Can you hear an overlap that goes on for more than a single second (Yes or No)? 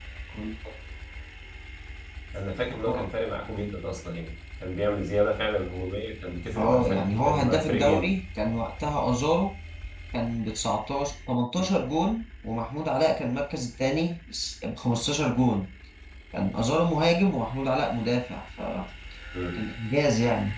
Yes